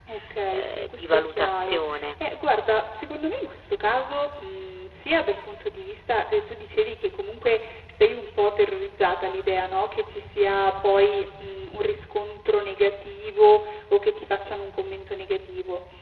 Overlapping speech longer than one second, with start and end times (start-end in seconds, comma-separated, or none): 0.5-2.1